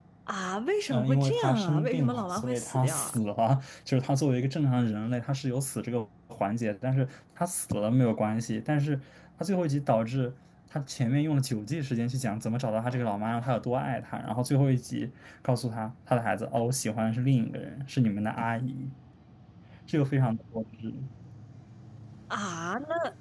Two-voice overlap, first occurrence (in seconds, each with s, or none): 0.9 s